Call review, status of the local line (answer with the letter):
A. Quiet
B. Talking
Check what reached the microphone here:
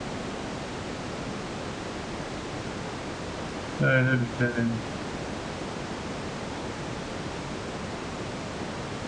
B